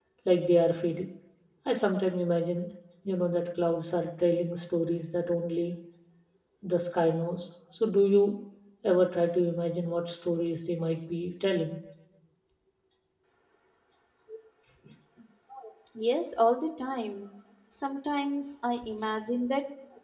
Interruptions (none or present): none